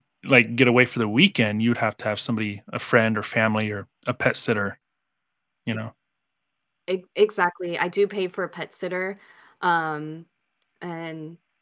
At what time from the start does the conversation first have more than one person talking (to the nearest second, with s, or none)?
none